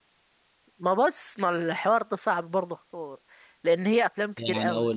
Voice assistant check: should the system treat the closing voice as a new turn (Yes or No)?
Yes